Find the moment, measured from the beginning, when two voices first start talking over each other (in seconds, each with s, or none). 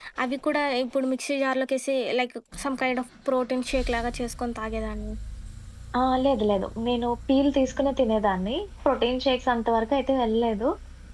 none